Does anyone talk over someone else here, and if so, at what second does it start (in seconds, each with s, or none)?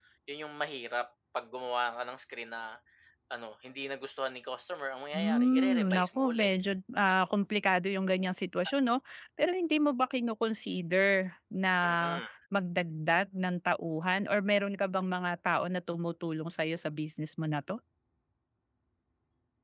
5.1 s